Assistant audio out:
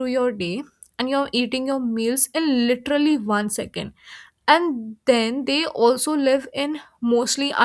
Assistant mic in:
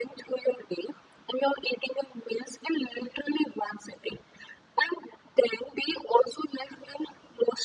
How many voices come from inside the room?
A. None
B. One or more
A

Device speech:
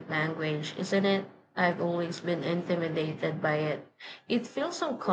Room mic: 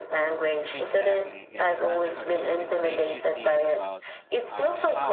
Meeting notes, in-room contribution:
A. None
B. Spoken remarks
B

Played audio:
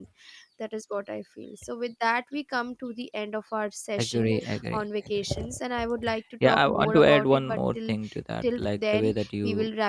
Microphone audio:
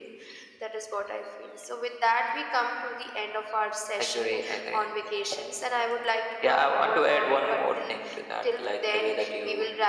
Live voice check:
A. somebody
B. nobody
B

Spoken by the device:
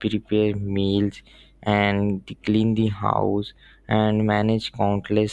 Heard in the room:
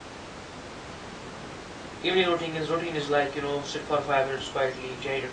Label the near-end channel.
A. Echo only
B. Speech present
B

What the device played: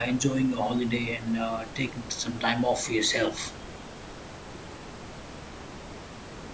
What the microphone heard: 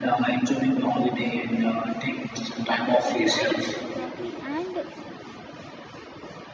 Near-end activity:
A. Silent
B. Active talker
B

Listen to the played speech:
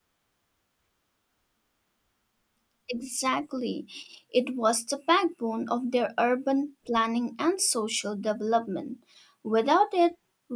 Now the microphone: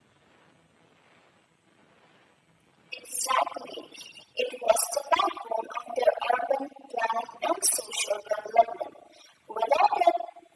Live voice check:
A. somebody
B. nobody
B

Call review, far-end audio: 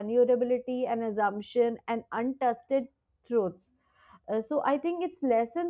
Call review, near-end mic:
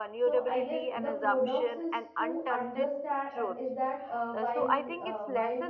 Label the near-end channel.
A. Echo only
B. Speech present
B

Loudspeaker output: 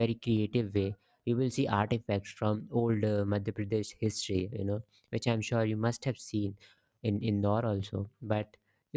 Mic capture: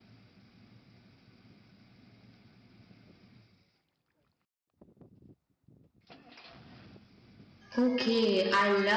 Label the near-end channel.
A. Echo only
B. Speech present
B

